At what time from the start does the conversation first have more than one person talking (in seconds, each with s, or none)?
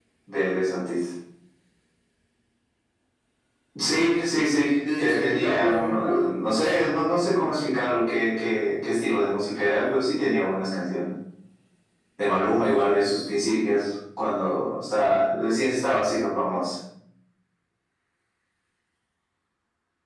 4.8 s